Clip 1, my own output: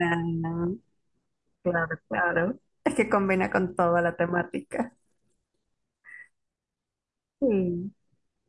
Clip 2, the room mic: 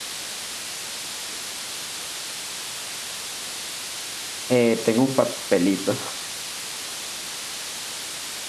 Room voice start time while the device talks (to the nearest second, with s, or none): 4 s